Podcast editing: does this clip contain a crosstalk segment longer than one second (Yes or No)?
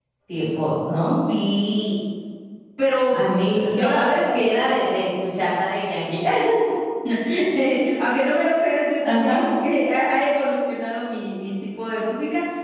Yes